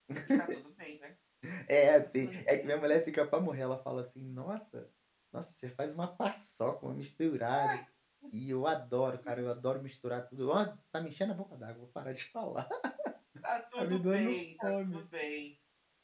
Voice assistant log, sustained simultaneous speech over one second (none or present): present